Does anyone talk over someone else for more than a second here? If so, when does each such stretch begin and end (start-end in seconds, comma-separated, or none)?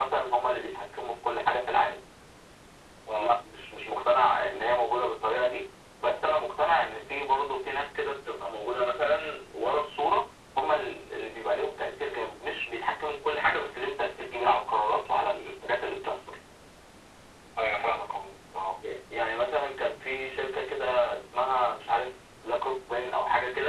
none